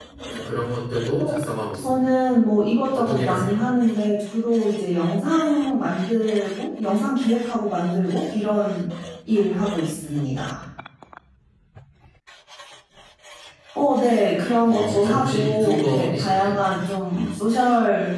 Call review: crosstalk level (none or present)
present